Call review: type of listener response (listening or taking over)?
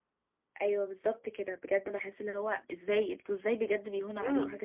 taking over